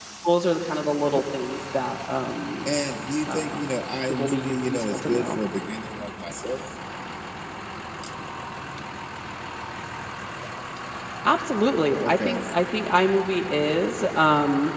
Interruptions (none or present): present